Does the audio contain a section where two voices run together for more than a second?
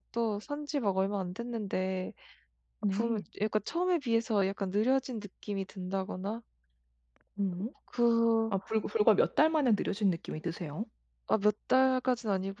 No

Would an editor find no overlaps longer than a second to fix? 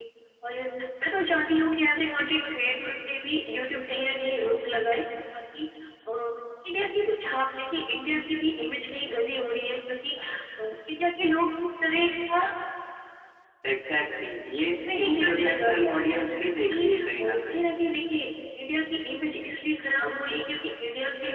No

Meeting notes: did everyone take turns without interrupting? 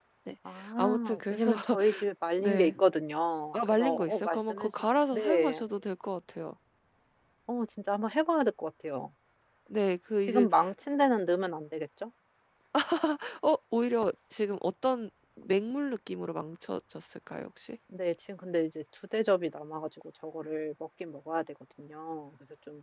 No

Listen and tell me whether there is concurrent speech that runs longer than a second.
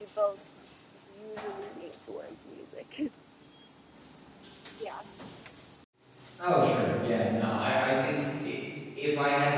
No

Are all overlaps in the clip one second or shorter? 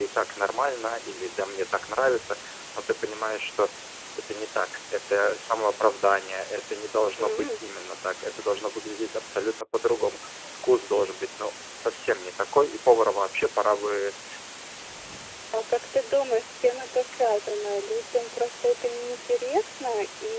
Yes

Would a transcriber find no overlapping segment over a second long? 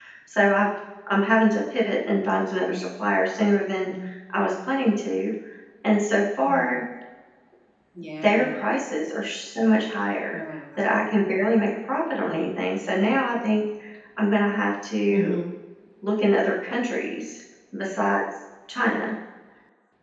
Yes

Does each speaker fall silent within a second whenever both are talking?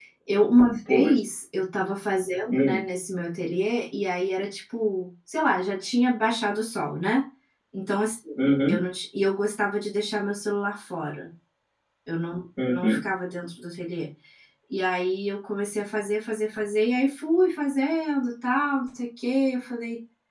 Yes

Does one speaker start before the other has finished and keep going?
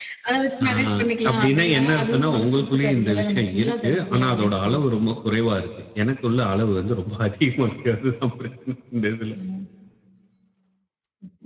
Yes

